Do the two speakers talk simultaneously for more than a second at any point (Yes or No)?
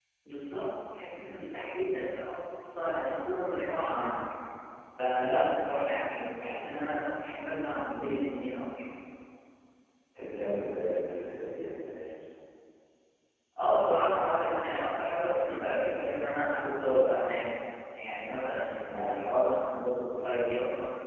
No